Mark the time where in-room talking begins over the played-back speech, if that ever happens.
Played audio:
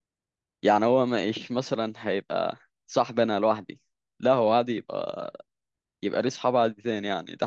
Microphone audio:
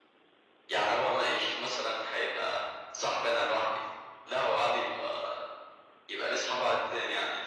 none

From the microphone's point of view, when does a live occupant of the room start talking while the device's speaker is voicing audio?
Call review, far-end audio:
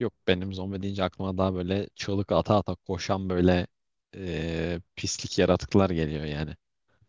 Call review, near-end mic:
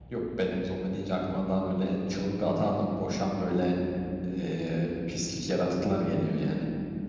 none

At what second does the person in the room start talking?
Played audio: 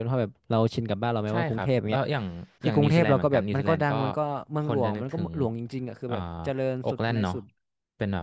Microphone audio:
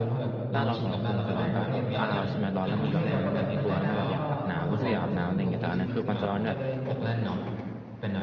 0.5 s

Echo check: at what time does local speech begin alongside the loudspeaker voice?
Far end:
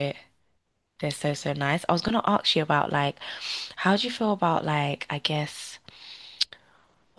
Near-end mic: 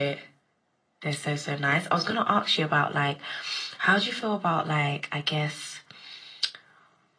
none

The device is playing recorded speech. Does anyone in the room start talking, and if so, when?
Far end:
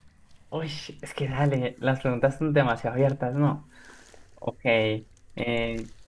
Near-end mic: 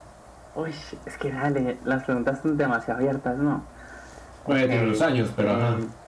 4.4 s

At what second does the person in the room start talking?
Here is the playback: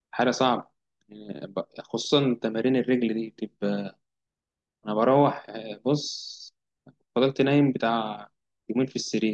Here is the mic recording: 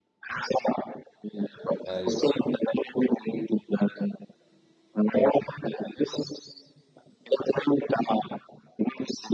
1.9 s

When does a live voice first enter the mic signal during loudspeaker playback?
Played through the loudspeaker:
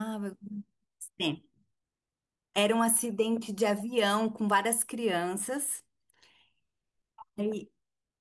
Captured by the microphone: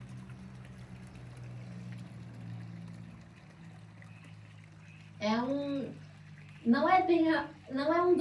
5.2 s

